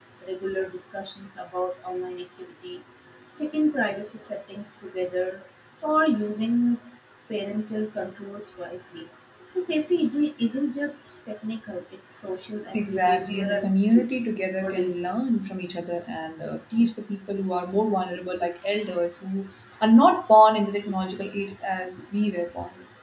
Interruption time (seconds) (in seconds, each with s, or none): 12.7 s